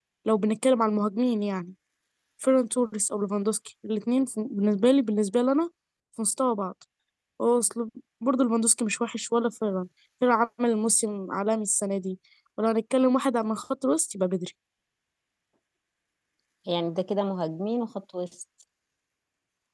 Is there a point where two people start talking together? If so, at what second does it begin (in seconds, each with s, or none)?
none